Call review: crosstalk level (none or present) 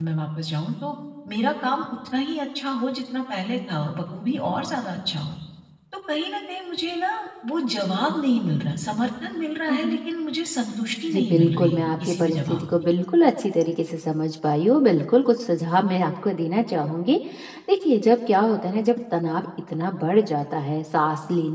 present